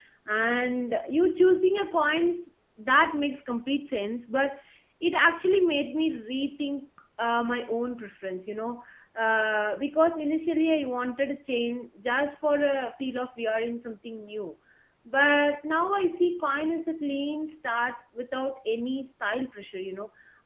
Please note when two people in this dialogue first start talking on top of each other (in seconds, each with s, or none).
none